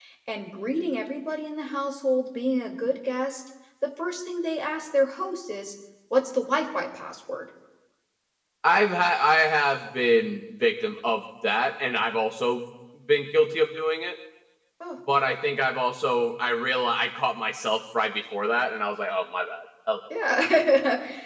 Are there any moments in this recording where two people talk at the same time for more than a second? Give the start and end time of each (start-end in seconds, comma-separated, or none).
none